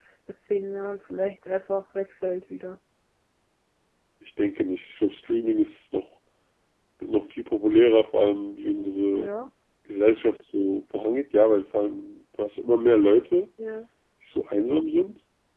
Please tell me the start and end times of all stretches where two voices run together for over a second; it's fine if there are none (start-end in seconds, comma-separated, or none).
none